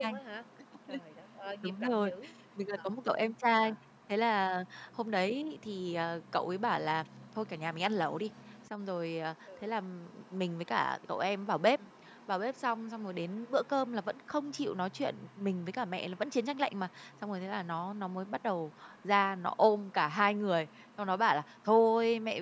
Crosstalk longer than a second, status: none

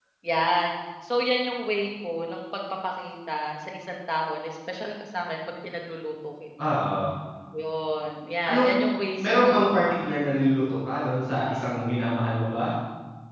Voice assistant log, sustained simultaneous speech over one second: none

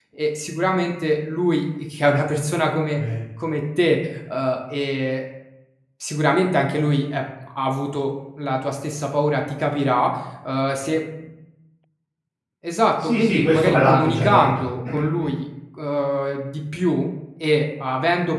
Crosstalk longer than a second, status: present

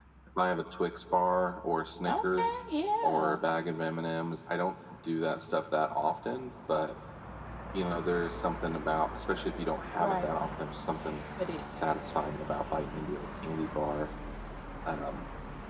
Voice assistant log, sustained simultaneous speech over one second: none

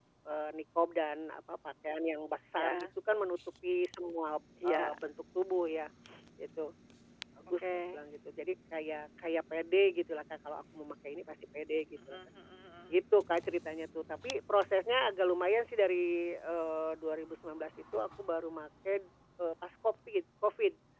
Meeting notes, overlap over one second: none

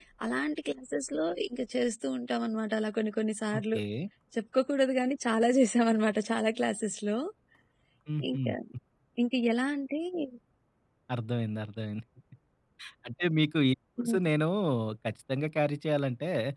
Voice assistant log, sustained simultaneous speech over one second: none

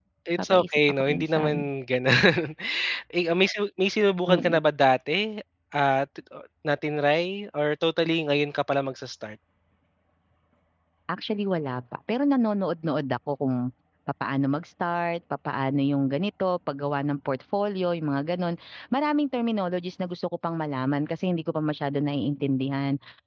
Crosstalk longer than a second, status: present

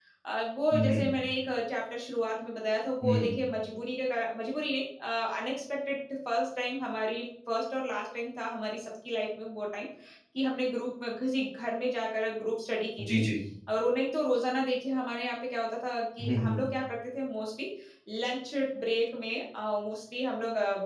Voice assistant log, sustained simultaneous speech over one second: none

